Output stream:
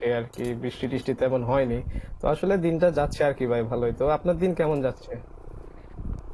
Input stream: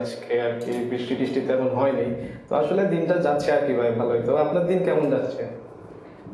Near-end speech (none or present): none